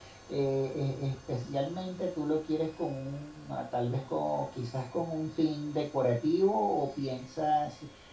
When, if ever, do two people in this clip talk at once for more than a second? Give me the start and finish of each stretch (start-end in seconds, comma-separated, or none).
none